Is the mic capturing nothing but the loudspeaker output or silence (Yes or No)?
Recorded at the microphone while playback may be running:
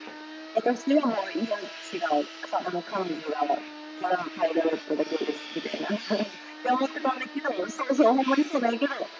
Yes